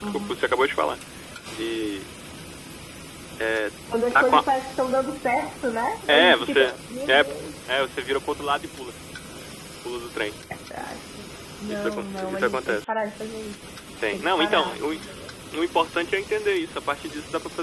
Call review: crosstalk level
present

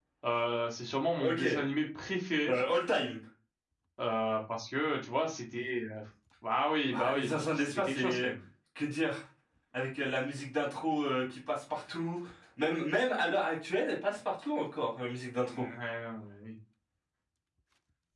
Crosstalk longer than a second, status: present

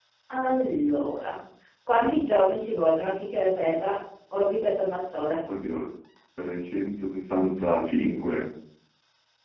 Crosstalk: none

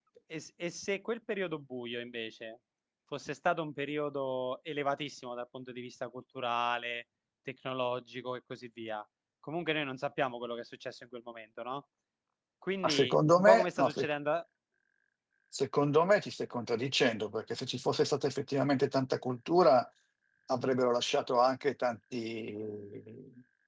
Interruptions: present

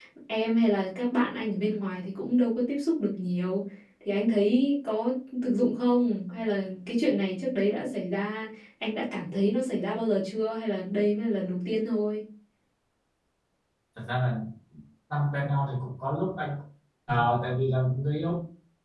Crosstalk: none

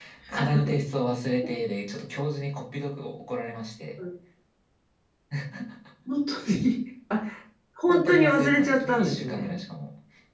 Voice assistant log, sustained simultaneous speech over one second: present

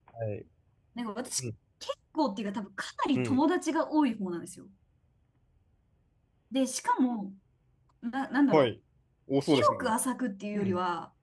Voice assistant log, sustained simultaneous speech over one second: none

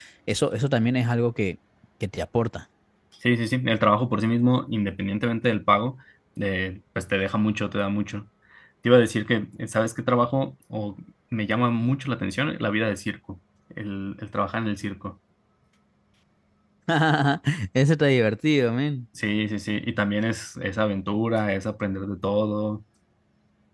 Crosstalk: none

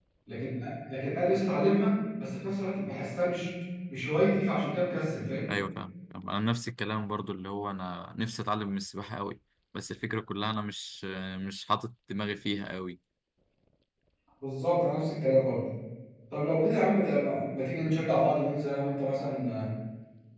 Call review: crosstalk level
none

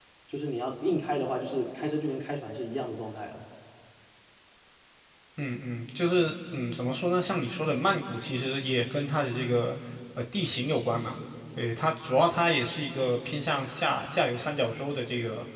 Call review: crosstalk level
none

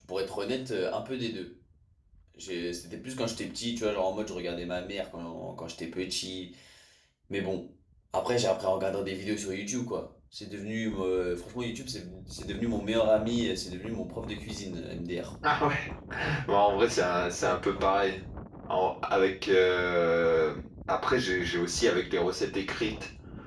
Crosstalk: none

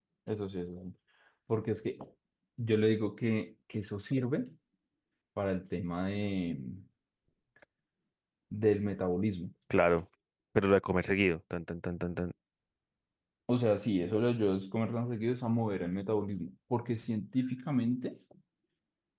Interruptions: none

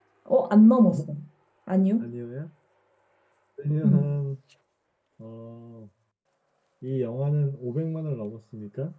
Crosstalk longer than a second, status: none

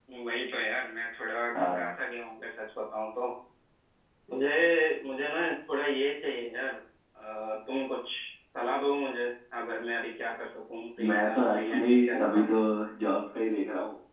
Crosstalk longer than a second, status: present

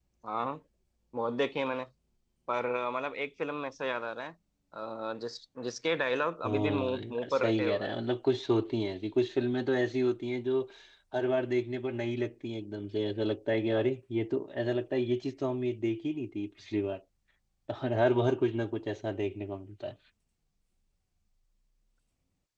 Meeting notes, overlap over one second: present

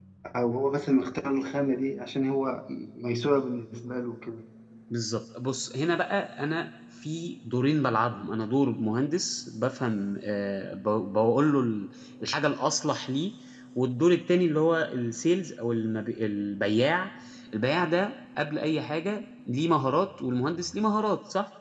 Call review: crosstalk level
none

